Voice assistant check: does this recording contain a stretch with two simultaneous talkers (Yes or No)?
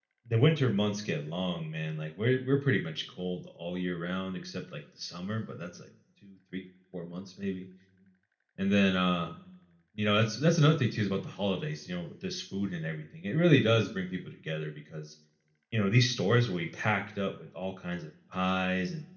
No